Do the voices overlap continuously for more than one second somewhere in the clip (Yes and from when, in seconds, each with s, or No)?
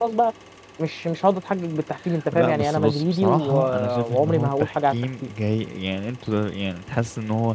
Yes, from 2.3 s